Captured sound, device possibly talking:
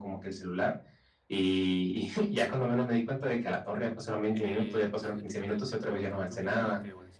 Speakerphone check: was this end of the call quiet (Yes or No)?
No